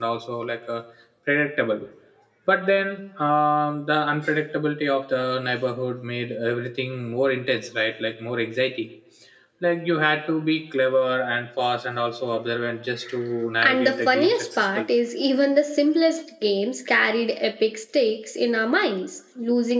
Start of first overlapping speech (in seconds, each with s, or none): 13.6 s